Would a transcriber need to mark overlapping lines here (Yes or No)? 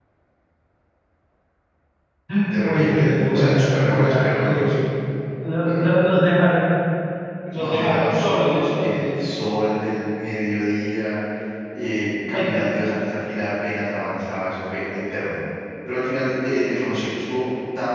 Yes